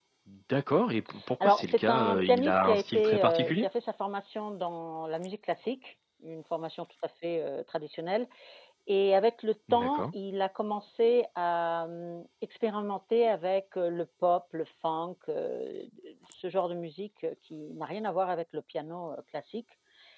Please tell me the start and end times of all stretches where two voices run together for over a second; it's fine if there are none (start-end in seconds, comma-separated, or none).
1.4-3.7